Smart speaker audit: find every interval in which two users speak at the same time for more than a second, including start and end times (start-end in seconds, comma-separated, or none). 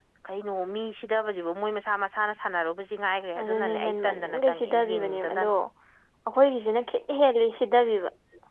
3.4-5.5